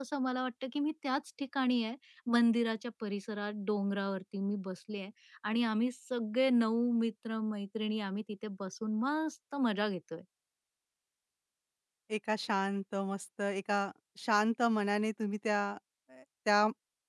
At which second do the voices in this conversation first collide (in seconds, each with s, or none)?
none